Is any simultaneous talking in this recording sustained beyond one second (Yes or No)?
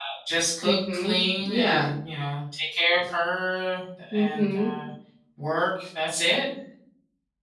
Yes